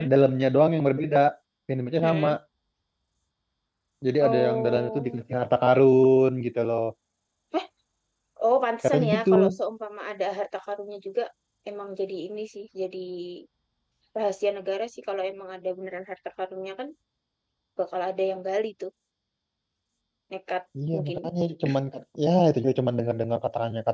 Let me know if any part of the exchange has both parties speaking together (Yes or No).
Yes